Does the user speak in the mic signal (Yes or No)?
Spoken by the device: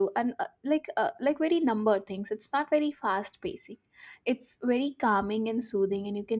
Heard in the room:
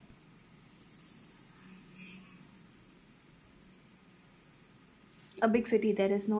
Yes